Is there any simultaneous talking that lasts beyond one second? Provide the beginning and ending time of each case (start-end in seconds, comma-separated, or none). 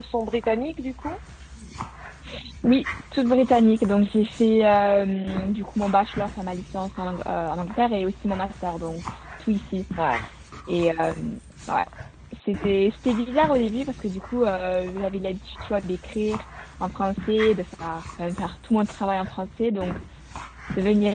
none